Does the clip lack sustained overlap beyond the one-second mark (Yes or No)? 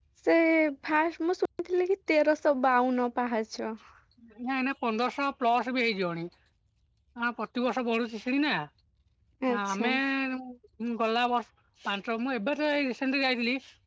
Yes